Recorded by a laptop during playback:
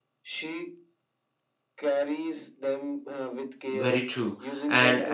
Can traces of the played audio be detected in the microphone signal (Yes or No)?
Yes